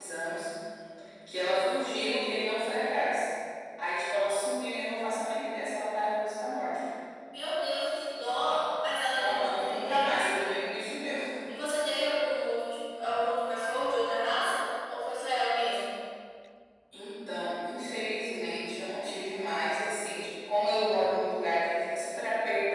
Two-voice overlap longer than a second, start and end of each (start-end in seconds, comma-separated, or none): 9.2-10.5